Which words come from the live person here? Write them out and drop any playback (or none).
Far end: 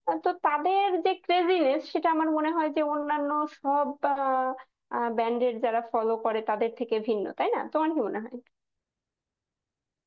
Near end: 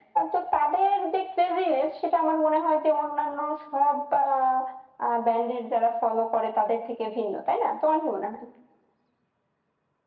none